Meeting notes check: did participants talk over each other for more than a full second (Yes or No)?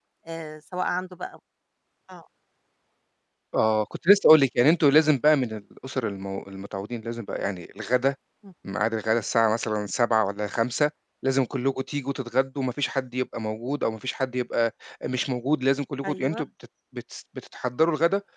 No